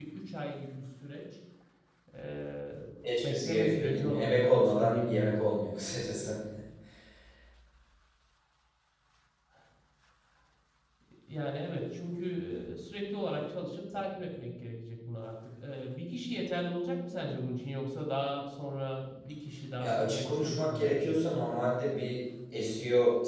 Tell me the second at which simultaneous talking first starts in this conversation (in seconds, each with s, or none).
3.2 s